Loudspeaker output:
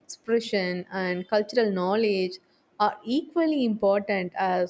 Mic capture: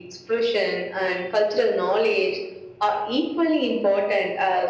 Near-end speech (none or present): none